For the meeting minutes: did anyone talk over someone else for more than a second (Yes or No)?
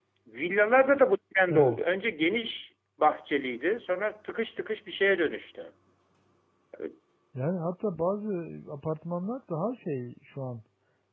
No